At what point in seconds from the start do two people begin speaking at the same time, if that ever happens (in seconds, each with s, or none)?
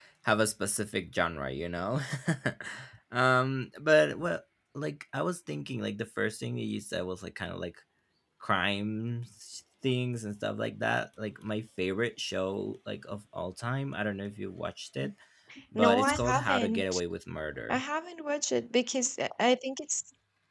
15.8 s